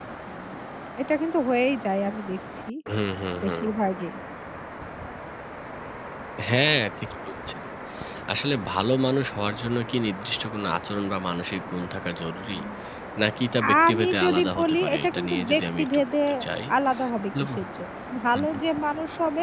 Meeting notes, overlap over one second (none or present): present